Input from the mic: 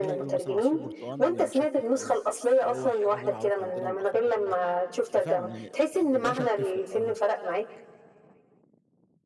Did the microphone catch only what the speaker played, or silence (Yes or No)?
No